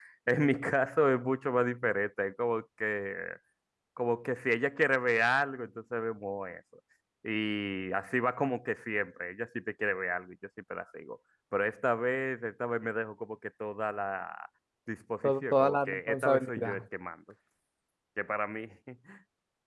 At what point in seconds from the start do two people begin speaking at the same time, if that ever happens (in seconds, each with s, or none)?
15.2 s